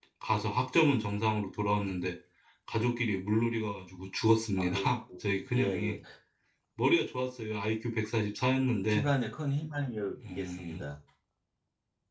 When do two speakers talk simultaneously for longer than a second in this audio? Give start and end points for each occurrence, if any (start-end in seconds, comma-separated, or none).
none